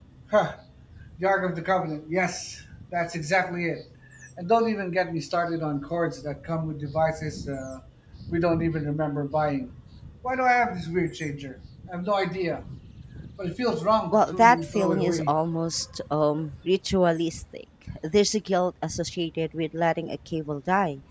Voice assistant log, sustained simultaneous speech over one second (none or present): present